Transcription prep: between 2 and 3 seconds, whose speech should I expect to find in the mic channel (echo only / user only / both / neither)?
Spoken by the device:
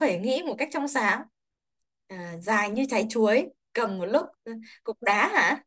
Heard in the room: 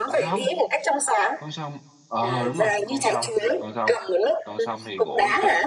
both